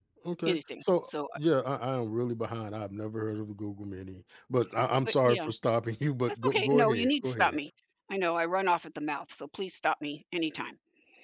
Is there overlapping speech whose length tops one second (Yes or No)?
Yes